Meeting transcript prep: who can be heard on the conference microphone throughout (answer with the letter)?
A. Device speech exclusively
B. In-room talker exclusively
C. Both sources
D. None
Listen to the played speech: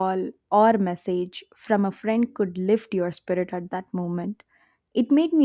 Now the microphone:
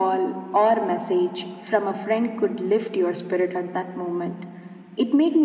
A